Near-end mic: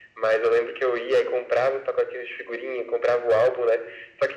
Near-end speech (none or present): none